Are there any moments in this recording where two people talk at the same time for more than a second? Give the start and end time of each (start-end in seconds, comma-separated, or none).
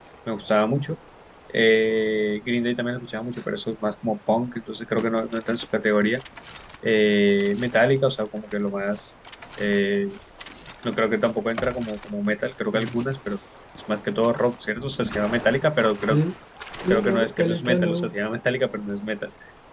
16.9-18.1